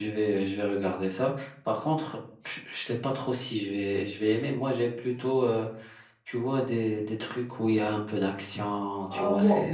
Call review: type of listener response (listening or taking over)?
taking over